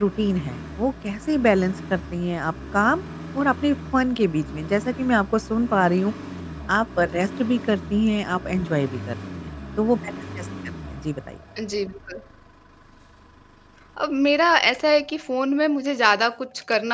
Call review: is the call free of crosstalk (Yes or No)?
Yes